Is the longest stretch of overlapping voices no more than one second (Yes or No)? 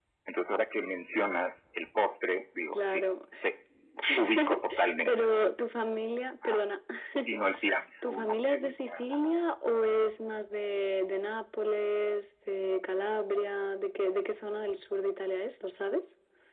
No